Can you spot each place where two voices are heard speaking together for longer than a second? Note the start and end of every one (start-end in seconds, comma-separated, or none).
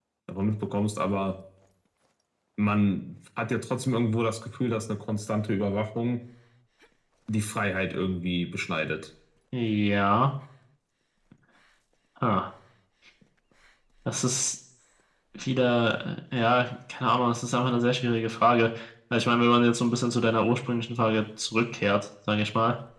none